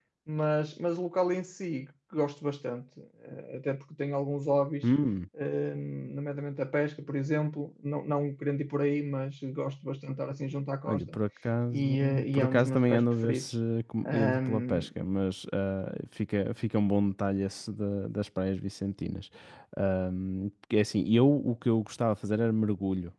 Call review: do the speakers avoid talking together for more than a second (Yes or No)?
No